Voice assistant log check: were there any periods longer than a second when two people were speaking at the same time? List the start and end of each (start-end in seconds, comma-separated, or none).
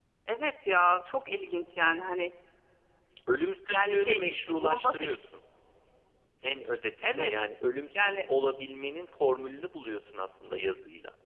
3.7-5.0